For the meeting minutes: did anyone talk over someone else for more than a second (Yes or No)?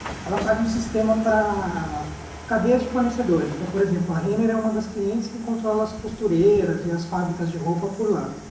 No